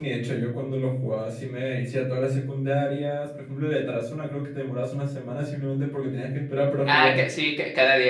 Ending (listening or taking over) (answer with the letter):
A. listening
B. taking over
B